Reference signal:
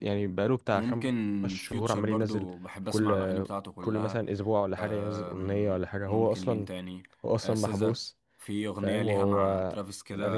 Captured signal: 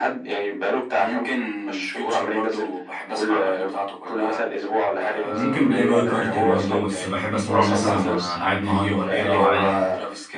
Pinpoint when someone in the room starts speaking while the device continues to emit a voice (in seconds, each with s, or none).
5.2 s